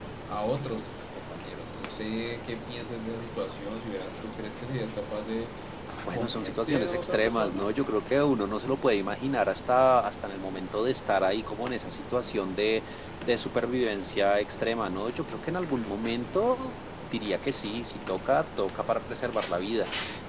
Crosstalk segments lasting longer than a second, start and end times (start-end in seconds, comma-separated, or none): 6.1-7.6